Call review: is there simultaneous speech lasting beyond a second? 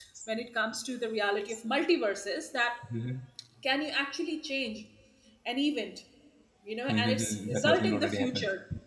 Yes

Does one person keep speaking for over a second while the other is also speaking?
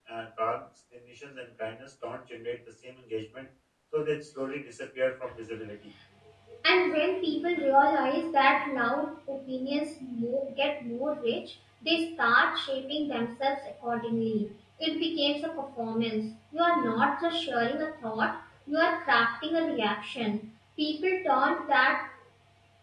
No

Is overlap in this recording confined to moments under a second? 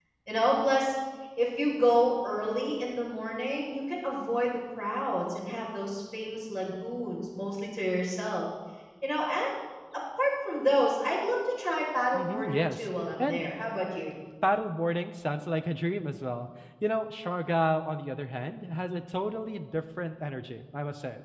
No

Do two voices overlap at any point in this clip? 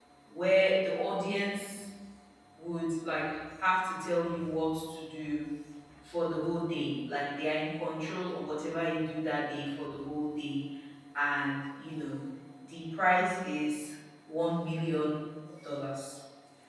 No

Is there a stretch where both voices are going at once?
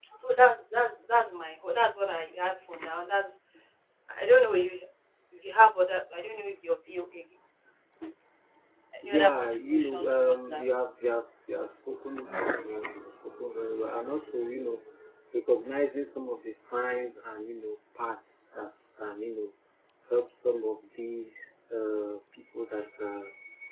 Yes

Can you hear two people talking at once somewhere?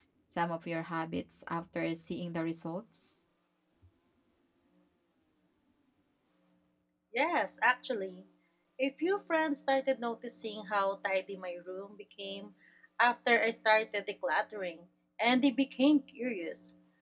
No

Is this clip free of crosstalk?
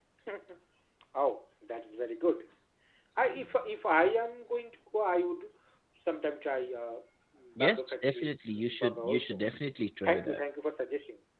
No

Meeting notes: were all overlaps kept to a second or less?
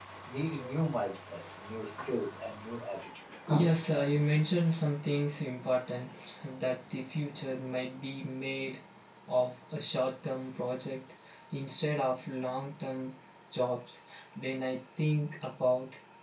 Yes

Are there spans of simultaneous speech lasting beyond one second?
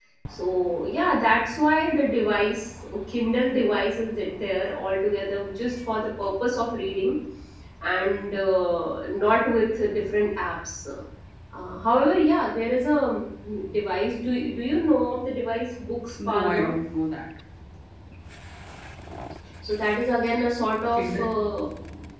No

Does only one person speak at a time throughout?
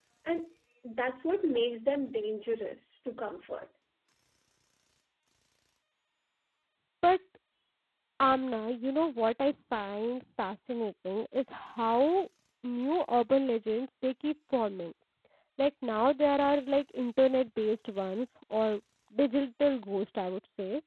Yes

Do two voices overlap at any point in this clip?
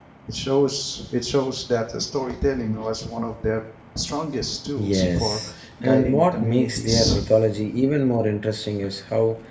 Yes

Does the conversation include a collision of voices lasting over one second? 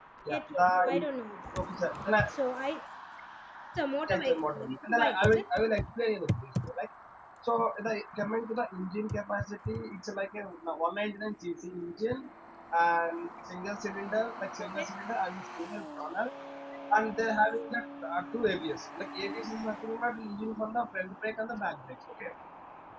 Yes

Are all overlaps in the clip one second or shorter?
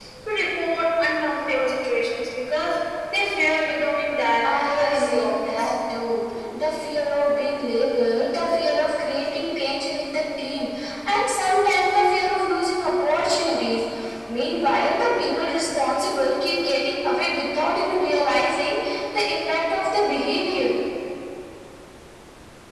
No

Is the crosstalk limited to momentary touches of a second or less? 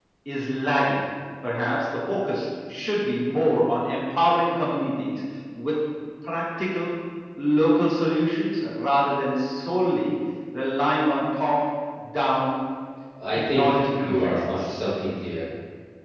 No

